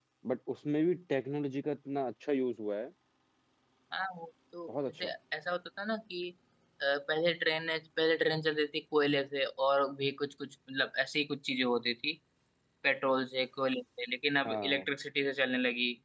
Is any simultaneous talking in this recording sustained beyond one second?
No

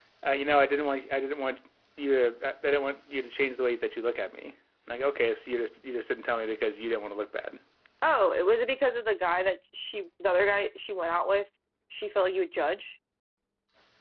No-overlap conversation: Yes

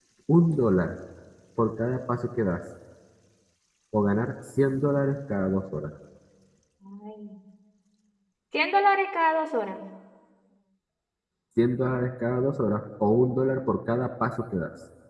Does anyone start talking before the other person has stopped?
No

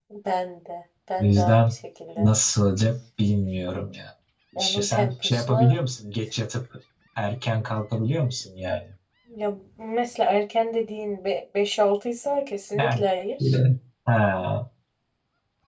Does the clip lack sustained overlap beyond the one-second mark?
No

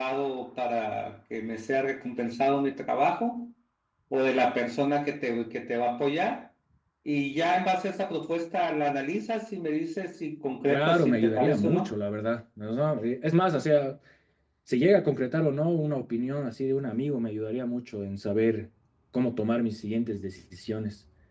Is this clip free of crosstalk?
No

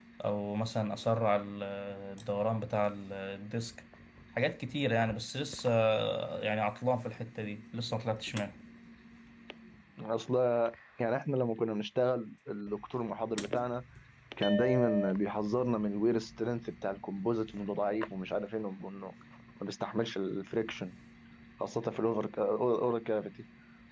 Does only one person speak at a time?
Yes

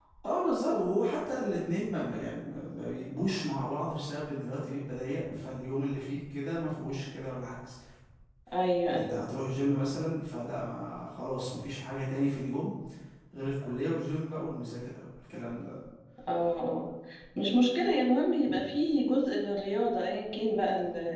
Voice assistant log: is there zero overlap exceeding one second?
Yes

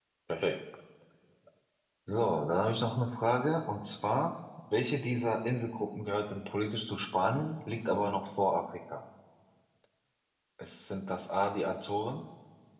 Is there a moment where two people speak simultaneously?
No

